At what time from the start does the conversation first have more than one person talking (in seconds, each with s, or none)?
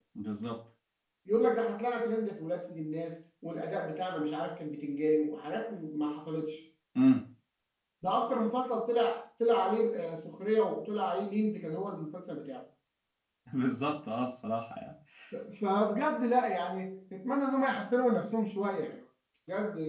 none